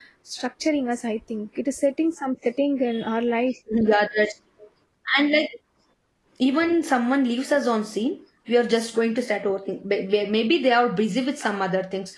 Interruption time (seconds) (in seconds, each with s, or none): none